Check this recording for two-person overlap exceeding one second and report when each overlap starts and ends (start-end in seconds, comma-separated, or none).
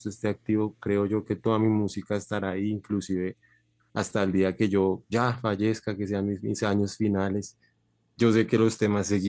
none